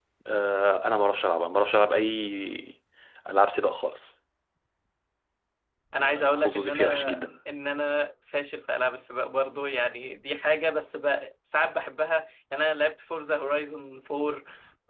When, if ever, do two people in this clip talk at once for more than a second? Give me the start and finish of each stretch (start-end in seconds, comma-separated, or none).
6.0-7.2